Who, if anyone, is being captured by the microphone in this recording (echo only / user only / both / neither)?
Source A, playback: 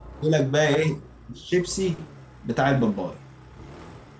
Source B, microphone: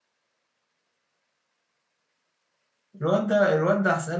user only